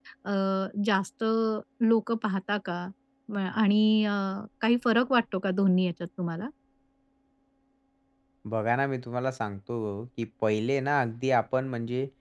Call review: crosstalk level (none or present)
none